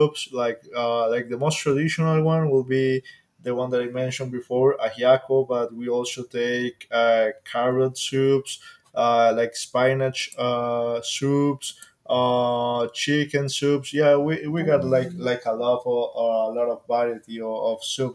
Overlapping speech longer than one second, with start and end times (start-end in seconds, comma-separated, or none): none